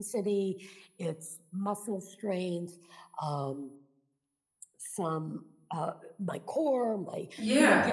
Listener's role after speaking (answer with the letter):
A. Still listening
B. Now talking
A